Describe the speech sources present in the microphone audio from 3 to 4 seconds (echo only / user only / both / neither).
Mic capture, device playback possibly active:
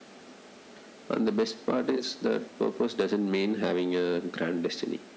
echo only